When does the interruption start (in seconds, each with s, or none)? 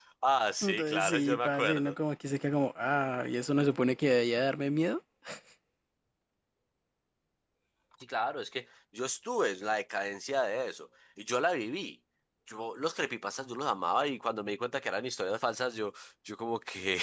0.6 s